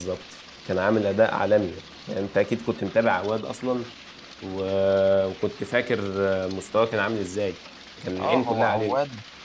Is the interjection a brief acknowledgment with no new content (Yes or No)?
No